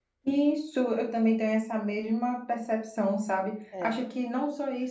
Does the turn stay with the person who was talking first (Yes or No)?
Yes